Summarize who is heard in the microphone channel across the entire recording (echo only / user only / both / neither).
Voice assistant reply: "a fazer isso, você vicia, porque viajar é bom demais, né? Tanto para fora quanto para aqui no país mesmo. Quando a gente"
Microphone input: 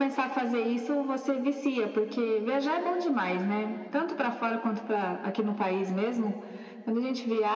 echo only